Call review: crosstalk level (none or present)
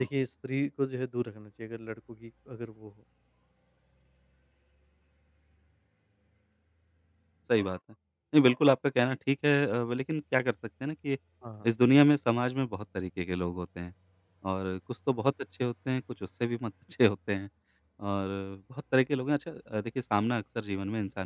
none